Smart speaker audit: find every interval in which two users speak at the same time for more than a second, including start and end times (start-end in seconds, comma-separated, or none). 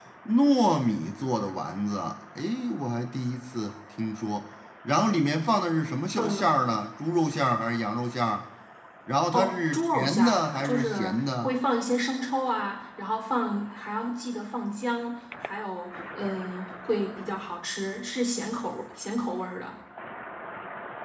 9.3-11.6